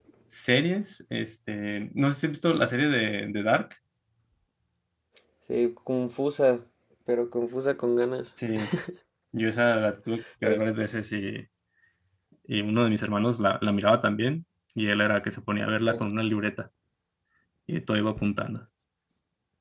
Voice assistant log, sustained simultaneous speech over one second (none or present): none